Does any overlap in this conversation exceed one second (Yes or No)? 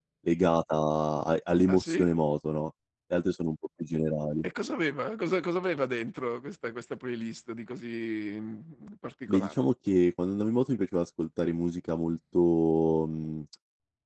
No